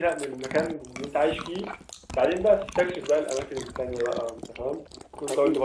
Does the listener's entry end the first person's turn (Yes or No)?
Yes